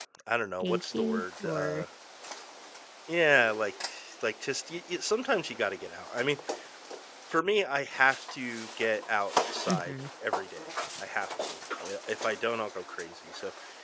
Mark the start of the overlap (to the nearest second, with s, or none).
1 s